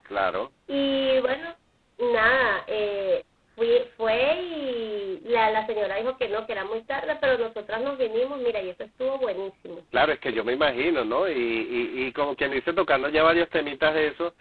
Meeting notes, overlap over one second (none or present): none